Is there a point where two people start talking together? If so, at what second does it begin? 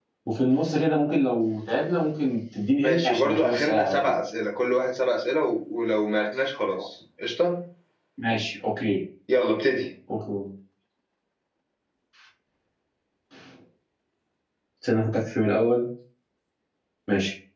2.8 s

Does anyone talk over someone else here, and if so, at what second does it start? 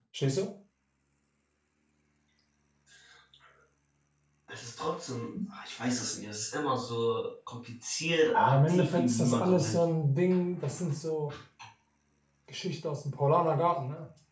8.3 s

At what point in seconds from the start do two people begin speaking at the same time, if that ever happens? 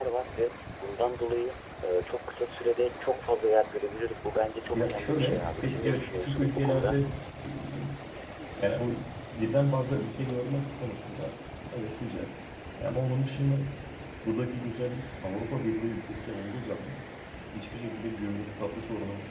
4.7 s

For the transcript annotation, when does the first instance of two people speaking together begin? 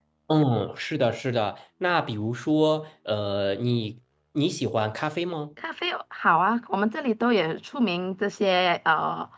none

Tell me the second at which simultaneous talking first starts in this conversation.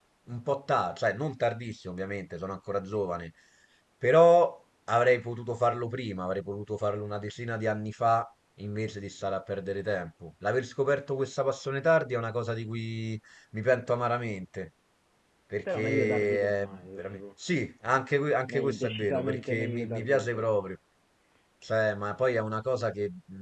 15.7 s

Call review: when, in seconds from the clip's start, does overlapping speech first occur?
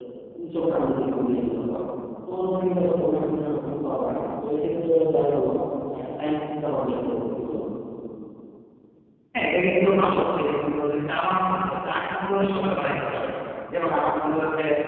none

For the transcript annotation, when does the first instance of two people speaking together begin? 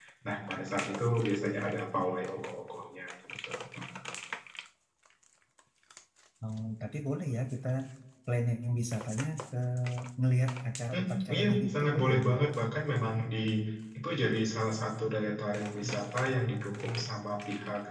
10.9 s

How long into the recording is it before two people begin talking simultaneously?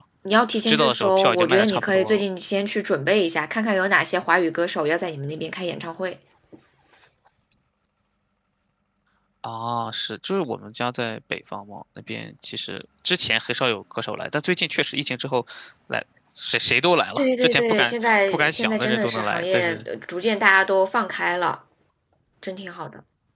0.5 s

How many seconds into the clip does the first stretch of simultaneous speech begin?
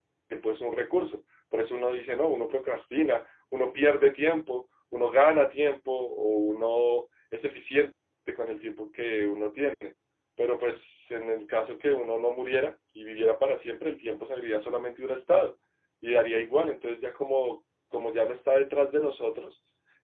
none

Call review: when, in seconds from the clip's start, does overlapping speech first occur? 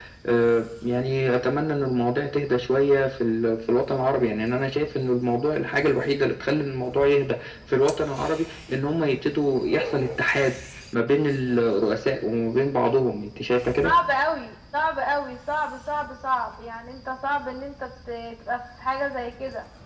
none

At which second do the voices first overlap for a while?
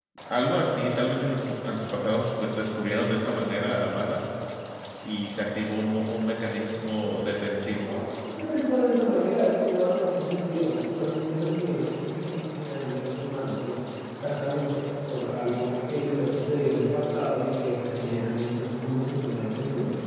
none

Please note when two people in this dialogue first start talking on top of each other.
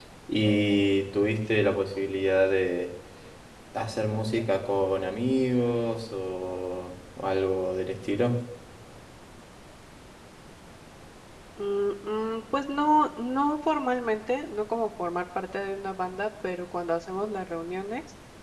none

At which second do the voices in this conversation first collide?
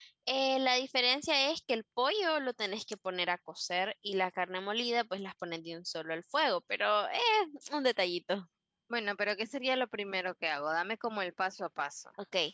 none

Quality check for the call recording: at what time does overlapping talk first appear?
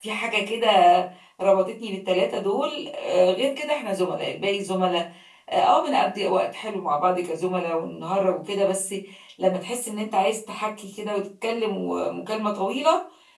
none

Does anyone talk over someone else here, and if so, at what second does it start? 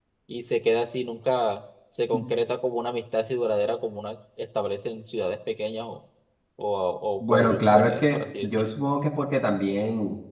7.2 s

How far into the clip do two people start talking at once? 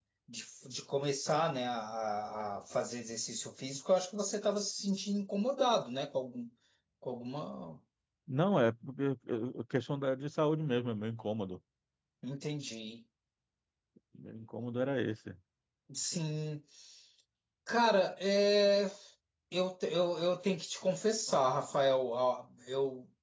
none

